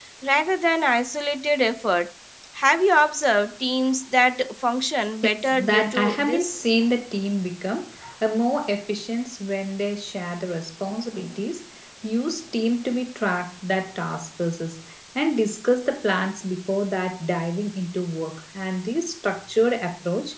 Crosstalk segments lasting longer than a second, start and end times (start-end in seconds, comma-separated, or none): 5.2-6.7